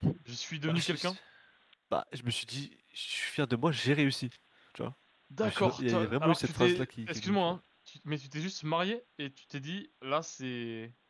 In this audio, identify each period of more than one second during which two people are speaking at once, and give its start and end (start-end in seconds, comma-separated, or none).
5.4-7.6